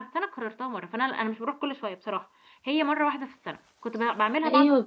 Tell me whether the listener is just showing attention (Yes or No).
No